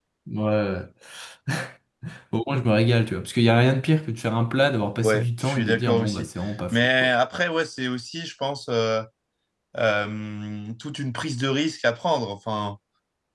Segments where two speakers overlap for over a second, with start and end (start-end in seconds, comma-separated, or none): 5.0-6.3